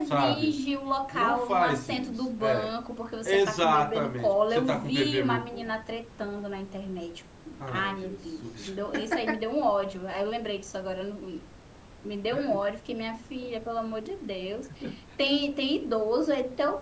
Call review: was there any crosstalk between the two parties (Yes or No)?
Yes